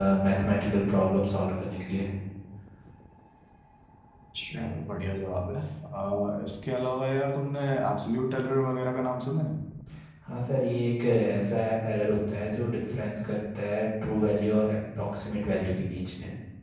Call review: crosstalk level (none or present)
none